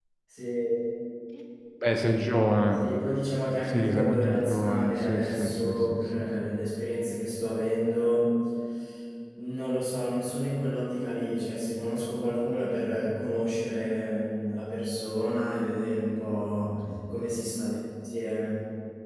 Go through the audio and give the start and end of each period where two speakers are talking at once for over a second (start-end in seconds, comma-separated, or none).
3.6-6.5